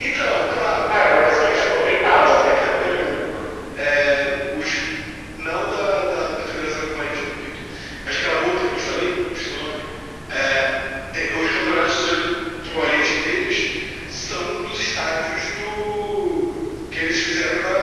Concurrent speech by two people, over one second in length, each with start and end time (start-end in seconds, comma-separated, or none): 0.9-3.2